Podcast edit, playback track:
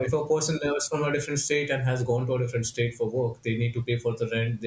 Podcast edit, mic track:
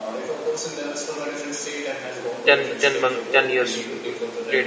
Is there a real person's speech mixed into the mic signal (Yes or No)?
Yes